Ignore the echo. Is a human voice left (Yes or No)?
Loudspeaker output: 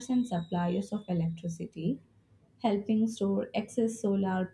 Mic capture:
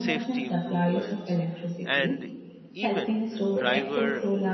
Yes